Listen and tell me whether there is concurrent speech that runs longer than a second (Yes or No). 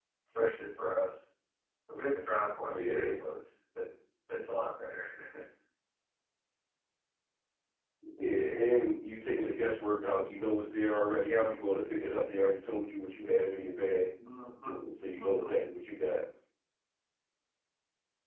No